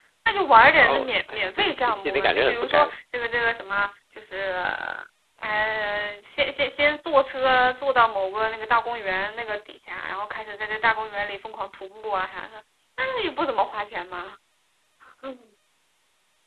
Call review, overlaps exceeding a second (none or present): present